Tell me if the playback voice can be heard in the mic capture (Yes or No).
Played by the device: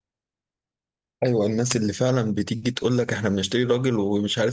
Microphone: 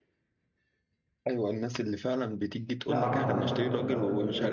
Yes